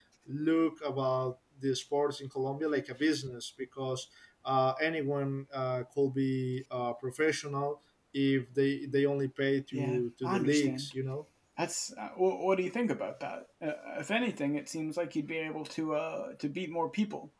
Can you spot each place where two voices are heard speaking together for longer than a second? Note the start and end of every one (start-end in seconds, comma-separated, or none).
9.7-10.9